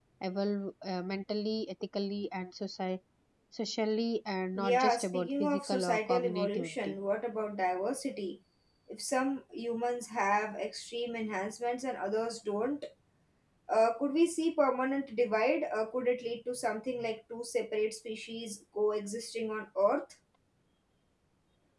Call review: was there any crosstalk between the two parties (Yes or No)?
Yes